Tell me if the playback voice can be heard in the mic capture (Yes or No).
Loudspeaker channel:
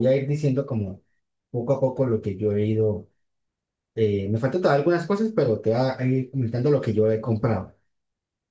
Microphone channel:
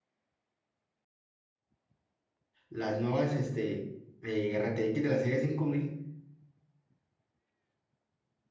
No